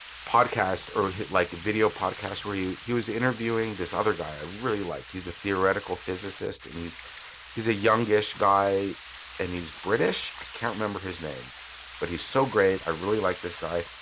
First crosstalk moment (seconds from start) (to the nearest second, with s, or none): none